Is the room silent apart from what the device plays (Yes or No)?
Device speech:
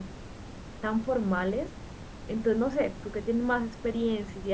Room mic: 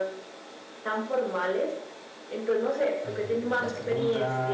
No